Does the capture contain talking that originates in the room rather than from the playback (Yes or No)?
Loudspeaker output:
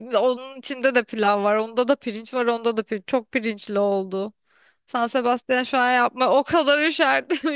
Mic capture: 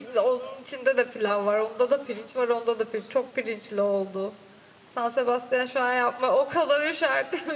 No